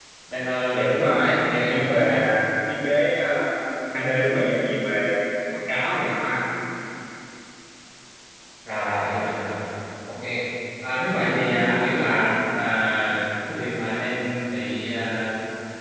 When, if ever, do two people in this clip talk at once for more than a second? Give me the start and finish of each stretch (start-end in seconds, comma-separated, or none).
0.9-2.2